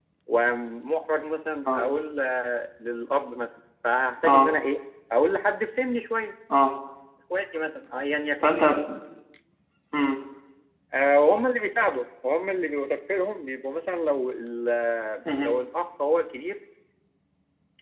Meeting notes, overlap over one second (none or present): none